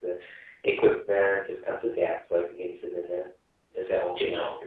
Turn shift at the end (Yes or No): Yes